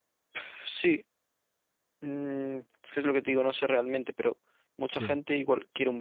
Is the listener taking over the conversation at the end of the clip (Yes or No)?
No